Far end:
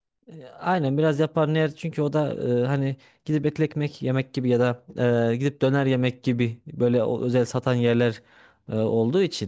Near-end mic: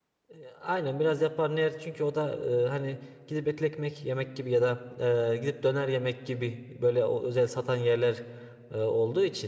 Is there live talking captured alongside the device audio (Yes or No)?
No